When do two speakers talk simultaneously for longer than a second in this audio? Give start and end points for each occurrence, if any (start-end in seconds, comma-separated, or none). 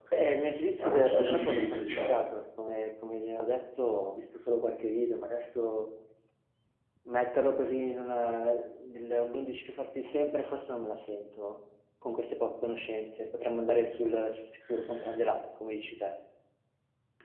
0.8-2.2